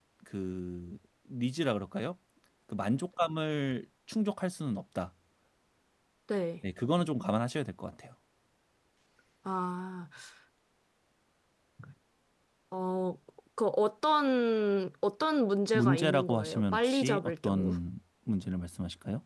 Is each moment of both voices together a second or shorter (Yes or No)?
No